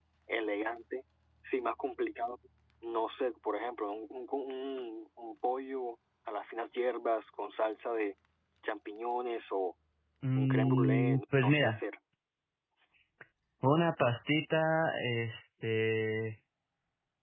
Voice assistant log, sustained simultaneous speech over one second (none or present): present